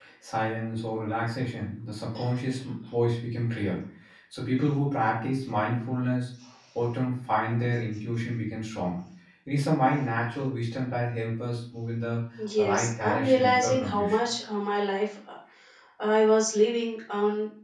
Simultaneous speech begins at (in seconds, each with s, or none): 12.7 s